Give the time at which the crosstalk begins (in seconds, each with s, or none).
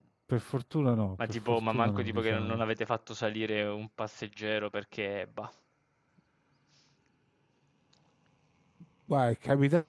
1.3 s